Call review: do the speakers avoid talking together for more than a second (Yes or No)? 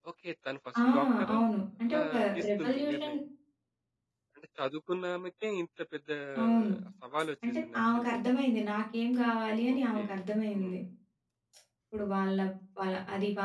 No